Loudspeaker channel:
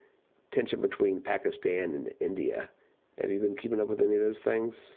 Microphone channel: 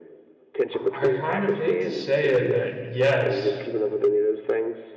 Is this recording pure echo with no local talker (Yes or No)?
No